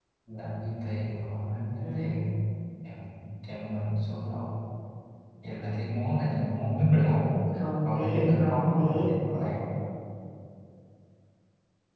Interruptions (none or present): present